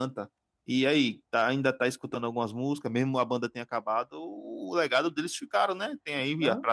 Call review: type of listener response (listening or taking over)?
listening